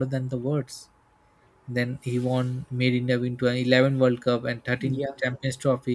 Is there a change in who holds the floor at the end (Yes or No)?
No